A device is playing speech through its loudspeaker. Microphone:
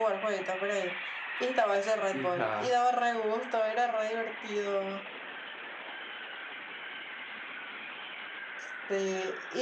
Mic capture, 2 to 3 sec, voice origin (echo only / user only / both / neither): both